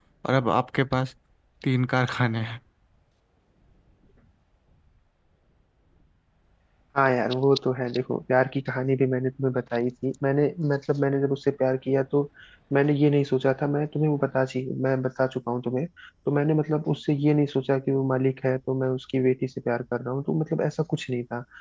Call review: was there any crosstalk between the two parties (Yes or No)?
No